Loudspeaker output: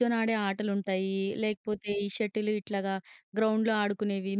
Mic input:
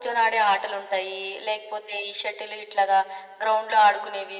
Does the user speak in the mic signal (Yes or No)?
No